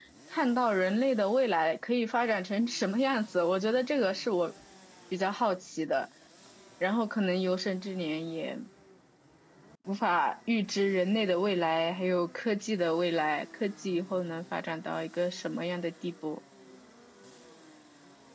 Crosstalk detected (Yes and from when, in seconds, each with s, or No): No